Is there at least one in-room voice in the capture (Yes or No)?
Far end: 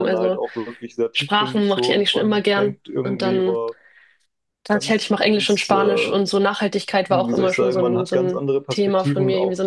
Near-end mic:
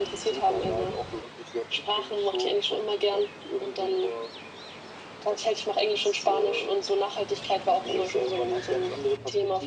No